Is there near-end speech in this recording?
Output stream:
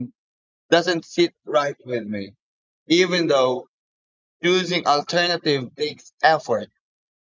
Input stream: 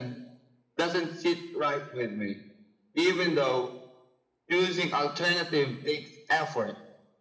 No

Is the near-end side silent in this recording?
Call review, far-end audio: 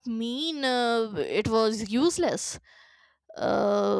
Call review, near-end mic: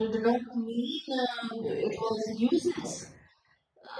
Yes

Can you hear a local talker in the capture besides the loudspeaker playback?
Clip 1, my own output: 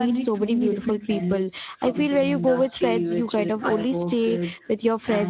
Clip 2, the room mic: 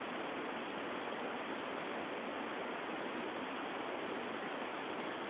No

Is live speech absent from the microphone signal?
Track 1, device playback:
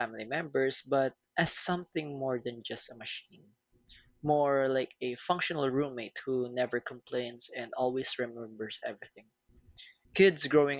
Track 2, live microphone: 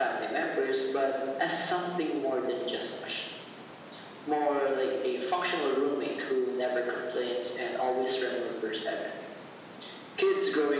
Yes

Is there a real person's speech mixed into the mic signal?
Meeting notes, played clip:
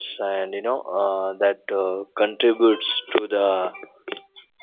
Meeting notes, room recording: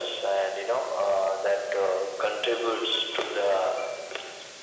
No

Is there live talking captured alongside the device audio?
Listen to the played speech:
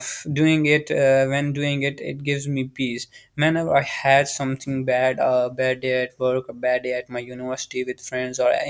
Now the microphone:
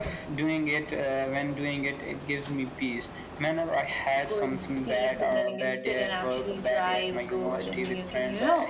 Yes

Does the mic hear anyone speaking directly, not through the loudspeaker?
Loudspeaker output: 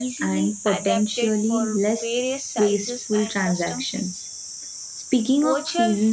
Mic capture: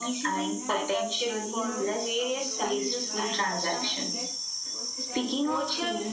Yes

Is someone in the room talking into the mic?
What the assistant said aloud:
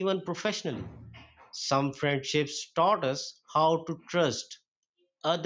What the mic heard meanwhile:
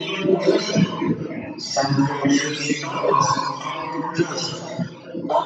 No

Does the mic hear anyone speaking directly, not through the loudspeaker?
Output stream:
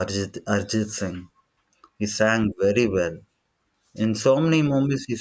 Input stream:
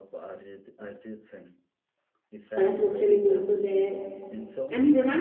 Yes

